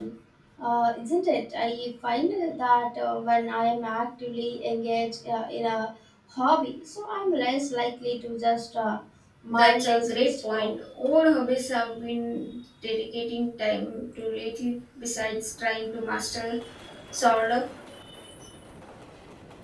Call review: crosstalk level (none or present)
present